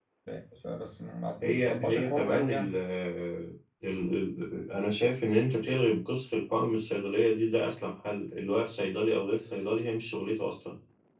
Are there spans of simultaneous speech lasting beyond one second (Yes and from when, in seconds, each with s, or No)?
Yes, from 1.4 s